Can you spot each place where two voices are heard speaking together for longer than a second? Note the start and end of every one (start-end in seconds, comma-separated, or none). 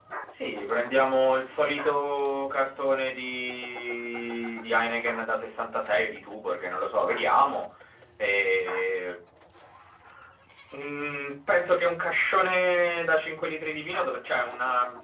none